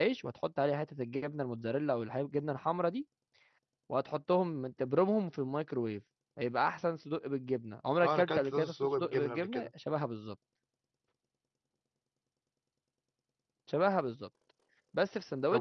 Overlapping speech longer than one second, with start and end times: 8.0-9.7

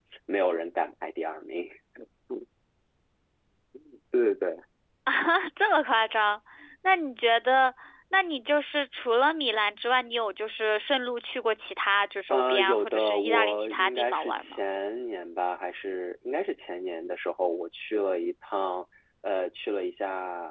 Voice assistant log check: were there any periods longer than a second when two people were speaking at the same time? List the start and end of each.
12.3-14.6

